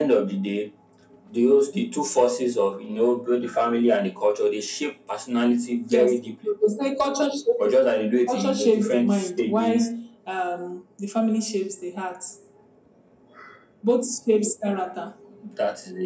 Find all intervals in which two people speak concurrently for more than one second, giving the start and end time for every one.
8.3-9.9

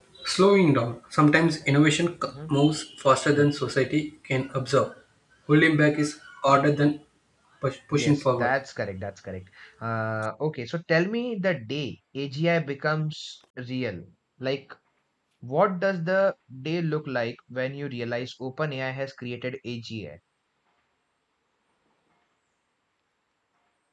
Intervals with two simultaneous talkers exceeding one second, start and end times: none

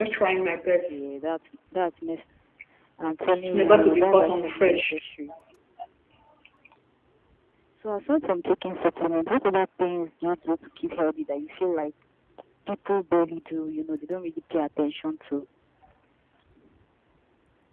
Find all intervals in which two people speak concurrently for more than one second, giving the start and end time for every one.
3.4-5.0

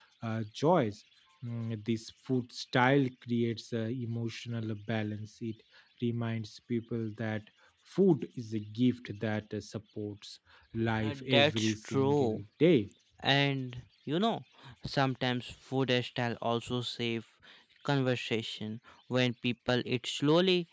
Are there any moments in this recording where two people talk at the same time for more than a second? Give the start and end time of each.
11.0-12.4

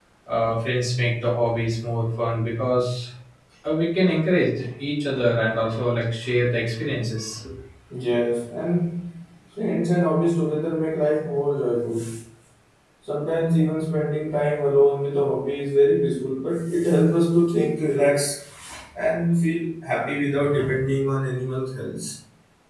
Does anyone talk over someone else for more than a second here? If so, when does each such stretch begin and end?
none

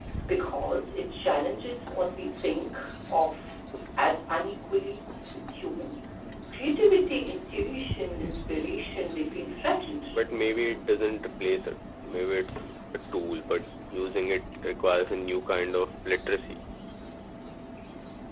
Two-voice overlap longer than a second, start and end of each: none

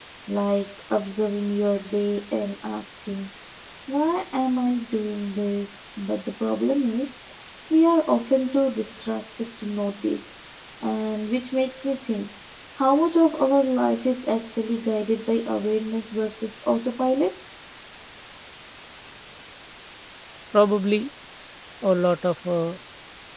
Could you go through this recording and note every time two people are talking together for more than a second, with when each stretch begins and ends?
none

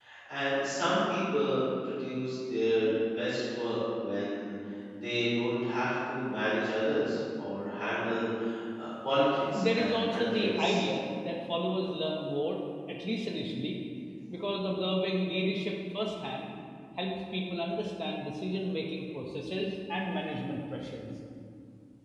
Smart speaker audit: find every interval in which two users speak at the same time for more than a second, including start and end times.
9.3-10.8

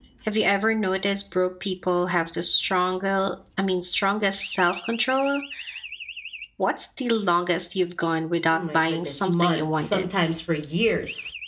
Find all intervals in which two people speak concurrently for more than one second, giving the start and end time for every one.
8.5-10.1

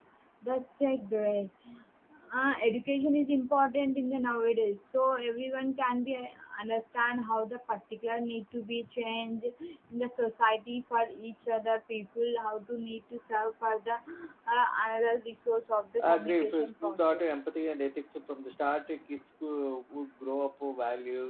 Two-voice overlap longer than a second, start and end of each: 16.0-17.3

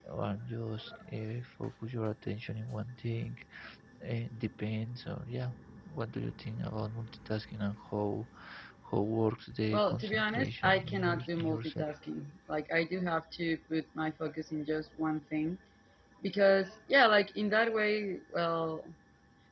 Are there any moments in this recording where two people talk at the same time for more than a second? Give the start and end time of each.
9.7-11.9

